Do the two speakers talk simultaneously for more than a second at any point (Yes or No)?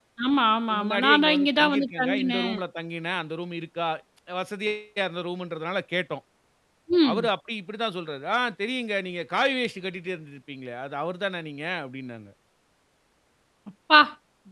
Yes